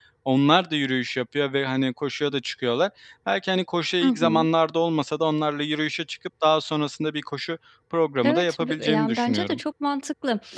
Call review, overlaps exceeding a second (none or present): present